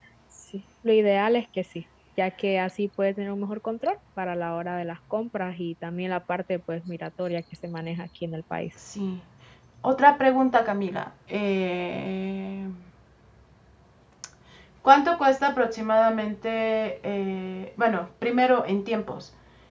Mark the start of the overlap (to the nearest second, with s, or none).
none